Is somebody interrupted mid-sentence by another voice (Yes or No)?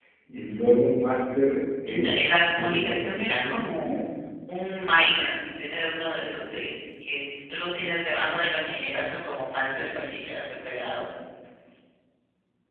Yes